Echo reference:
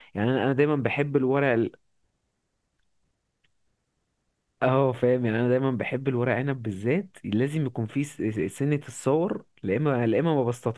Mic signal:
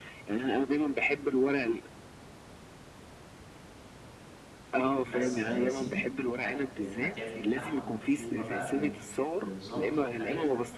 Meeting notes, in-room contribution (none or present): present